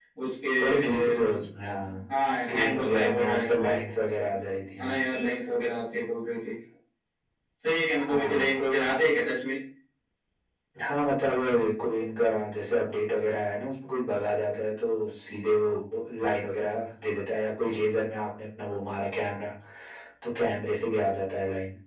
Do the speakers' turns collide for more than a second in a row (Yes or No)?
Yes